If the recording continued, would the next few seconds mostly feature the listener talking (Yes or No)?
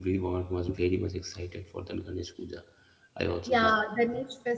Yes